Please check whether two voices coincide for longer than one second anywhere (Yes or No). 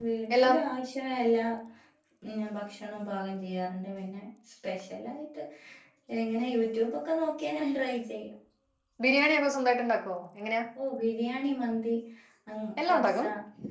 No